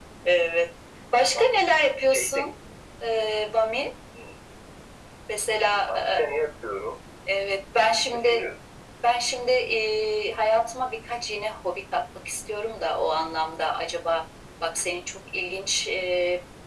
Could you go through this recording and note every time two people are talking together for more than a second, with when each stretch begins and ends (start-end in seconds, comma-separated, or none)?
none